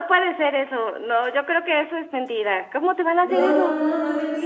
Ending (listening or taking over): taking over